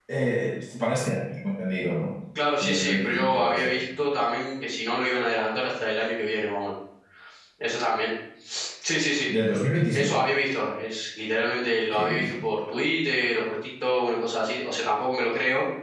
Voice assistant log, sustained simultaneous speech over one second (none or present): present